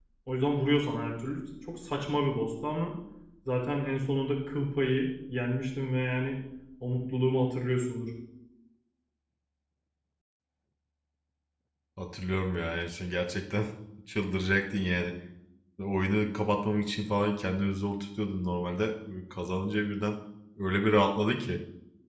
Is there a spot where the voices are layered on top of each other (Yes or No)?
No